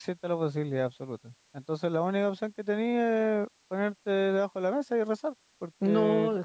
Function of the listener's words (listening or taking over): taking over